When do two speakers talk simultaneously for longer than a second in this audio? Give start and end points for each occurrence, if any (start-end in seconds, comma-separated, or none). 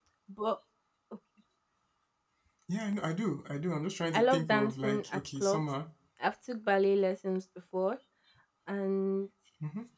4.1-5.6